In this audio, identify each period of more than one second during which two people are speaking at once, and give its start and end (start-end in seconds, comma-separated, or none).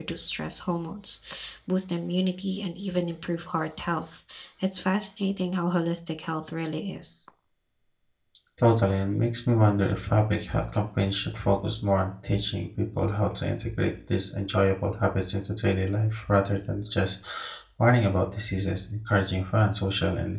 none